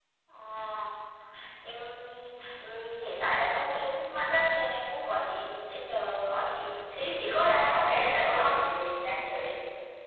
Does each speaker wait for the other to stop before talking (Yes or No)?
No